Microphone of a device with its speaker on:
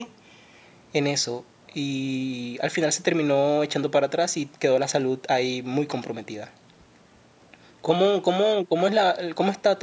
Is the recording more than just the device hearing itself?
Yes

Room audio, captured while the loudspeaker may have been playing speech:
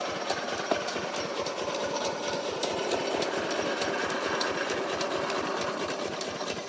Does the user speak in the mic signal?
No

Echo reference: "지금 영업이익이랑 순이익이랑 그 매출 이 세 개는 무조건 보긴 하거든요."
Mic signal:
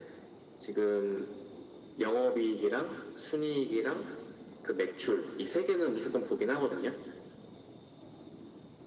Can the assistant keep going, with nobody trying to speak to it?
Yes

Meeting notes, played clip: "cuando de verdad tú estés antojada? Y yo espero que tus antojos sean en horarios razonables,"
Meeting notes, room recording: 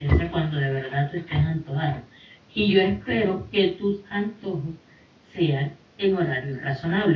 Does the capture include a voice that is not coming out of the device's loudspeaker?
No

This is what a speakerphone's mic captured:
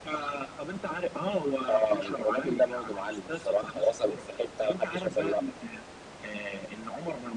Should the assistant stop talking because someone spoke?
No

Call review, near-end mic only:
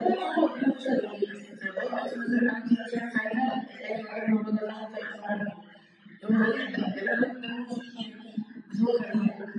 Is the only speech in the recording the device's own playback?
Yes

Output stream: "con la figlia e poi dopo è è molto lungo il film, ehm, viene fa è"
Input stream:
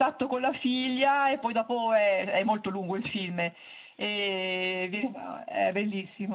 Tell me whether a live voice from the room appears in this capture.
No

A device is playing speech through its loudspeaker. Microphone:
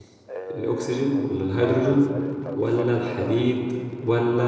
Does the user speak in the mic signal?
Yes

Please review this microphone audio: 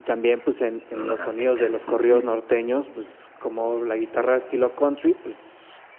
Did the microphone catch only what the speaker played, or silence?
No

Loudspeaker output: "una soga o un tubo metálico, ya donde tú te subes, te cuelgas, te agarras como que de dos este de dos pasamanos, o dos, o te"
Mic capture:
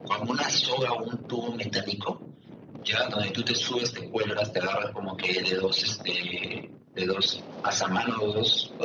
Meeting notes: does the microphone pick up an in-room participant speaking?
No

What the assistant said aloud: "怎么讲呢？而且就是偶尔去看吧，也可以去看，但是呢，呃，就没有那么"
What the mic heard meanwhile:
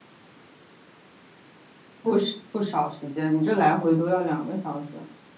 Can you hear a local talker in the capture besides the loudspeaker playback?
Yes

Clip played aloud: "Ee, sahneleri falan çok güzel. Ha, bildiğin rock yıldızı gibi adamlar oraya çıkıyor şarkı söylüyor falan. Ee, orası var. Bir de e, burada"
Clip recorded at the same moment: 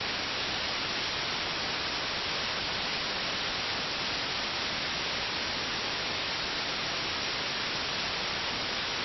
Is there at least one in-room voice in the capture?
No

